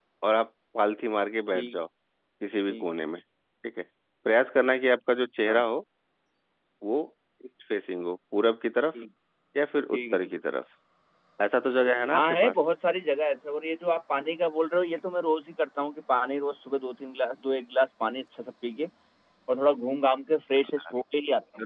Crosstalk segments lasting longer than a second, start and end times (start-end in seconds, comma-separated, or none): none